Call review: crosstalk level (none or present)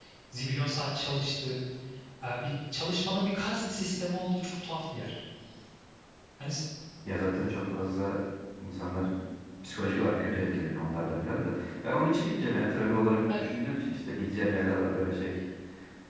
none